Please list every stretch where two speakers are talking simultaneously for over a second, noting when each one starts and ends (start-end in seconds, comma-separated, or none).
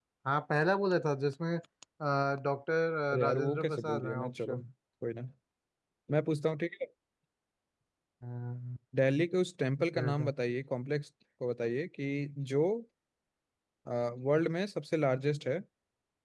3.1-4.6